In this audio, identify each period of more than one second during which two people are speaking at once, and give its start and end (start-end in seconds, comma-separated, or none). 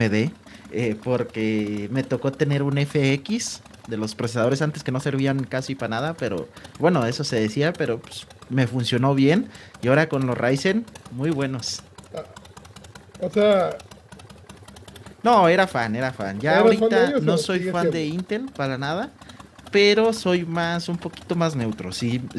16.5-18.1